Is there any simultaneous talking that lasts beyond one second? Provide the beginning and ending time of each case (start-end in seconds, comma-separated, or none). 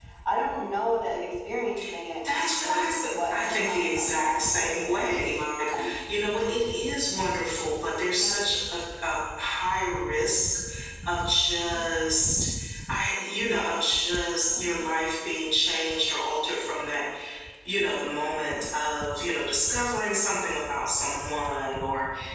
2.3-5.0